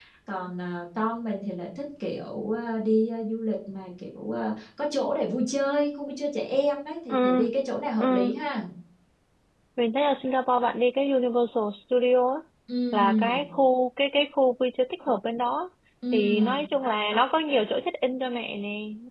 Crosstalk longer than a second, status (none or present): none